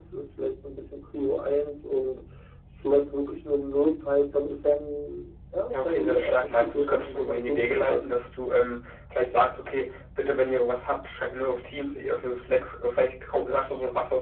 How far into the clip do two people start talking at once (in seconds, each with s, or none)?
5.7 s